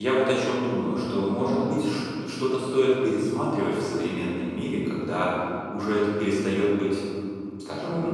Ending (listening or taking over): taking over